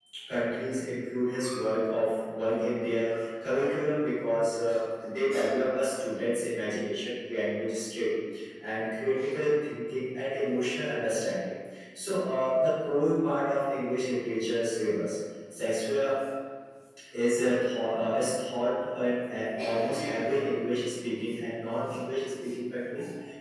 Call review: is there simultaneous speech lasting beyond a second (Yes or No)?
No